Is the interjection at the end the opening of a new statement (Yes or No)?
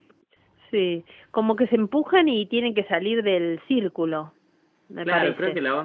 Yes